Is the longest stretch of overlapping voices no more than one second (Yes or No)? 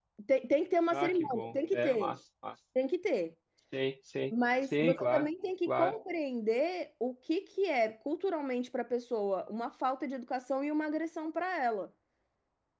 No